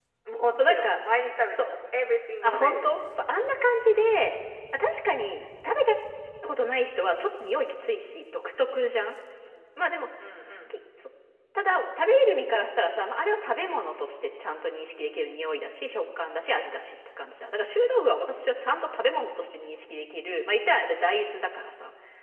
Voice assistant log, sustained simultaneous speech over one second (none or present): none